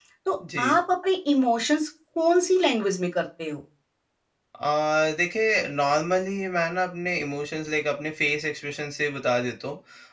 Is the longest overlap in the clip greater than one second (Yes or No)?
No